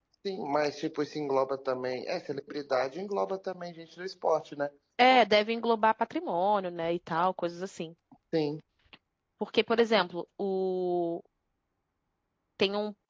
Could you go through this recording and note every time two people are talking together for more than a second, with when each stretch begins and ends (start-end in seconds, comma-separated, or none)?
none